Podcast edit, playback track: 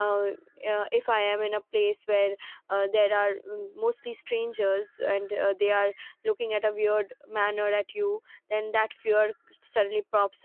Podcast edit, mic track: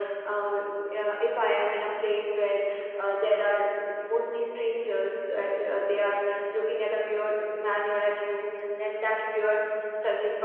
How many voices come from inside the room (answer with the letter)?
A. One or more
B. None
B